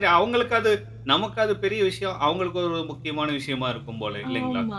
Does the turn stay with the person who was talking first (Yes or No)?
No